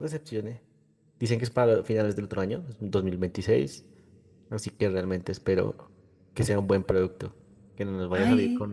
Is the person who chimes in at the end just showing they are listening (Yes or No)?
Yes